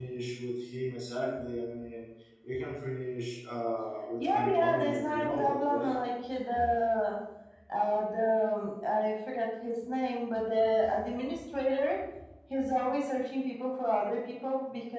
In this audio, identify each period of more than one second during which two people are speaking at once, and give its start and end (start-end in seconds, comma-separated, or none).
4.2-5.9